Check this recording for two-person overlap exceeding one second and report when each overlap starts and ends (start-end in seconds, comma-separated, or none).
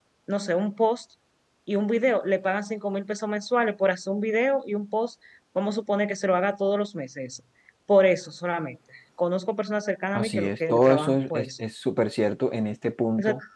10.1-11.5